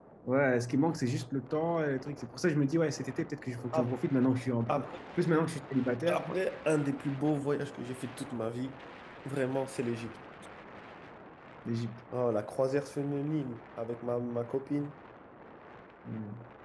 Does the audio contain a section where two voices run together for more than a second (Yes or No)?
No